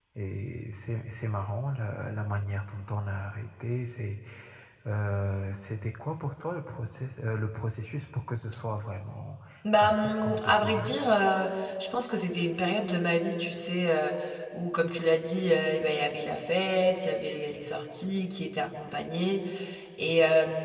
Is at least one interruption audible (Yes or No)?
Yes